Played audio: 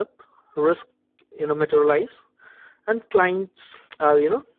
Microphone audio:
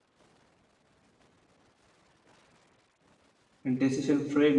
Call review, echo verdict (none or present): none